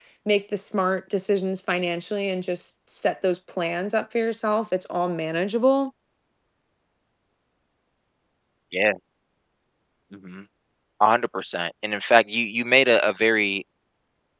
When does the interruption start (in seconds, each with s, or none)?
none